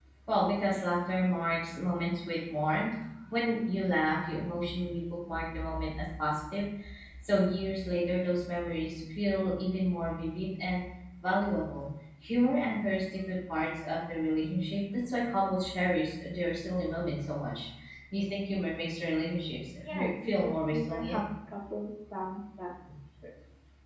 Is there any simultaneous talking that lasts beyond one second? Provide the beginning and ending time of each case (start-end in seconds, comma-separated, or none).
19.9-21.2